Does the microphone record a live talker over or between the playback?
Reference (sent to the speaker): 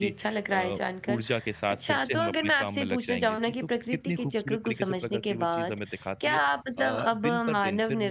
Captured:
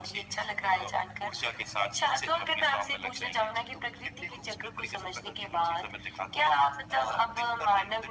No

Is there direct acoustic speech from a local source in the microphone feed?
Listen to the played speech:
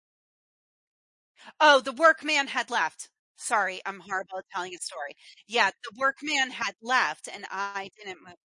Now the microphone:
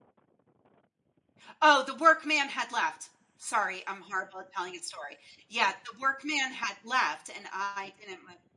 No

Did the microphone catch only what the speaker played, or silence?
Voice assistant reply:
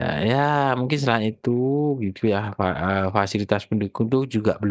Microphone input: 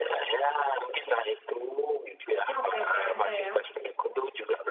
No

